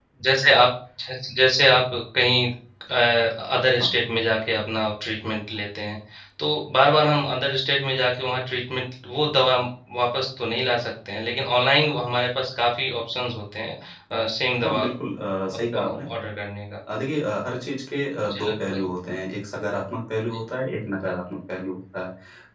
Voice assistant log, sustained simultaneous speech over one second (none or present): none